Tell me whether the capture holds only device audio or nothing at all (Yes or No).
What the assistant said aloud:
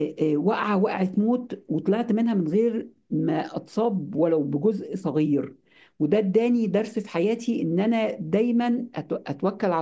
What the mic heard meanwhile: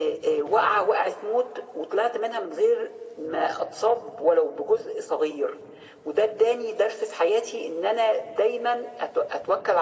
Yes